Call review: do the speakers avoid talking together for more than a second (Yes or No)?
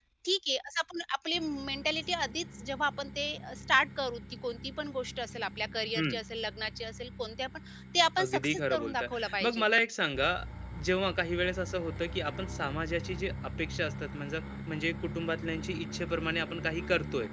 No